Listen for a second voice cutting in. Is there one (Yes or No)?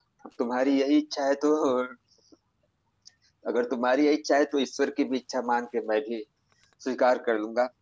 No